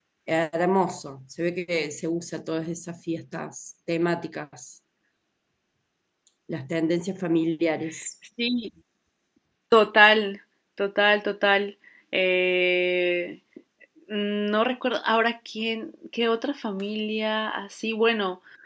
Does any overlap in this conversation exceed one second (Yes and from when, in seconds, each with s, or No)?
No